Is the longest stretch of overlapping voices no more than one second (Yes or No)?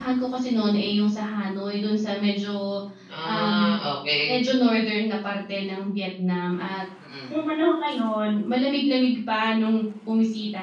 Yes